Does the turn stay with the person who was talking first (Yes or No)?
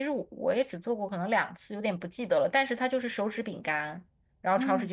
Yes